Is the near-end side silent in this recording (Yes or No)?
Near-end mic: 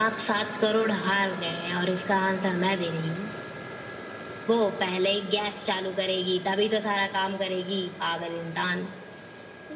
Yes